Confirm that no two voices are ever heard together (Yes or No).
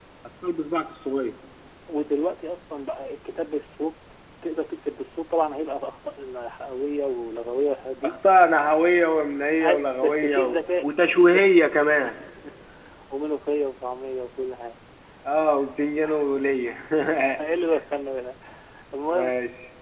No